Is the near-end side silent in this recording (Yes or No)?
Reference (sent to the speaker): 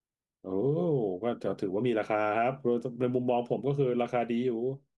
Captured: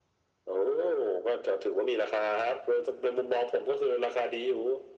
Yes